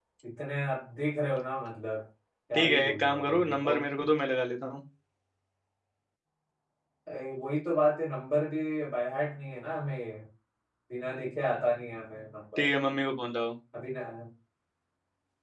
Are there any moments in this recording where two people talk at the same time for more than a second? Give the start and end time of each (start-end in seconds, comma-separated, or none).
2.5-3.8